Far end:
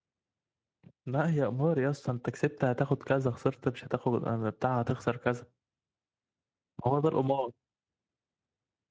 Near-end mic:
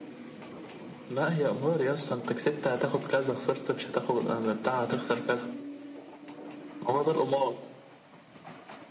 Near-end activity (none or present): none